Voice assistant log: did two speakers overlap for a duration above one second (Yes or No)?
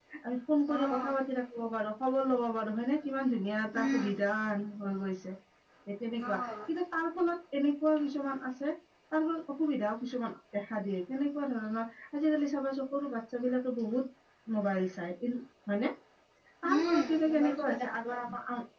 Yes